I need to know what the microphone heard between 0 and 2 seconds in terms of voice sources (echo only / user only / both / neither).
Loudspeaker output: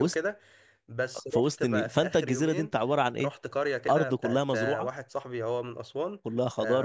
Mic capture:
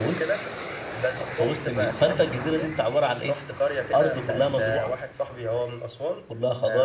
echo only